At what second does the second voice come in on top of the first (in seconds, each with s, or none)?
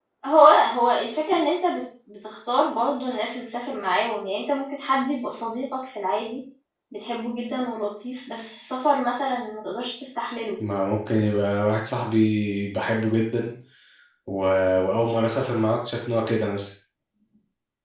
none